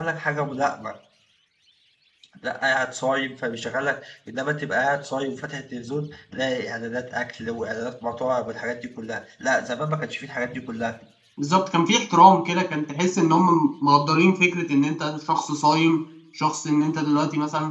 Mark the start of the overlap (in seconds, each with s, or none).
none